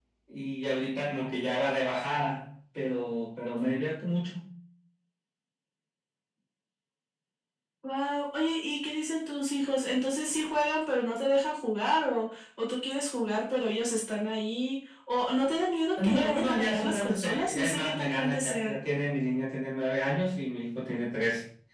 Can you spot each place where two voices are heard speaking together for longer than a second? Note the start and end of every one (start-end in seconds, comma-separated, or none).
16.0-18.8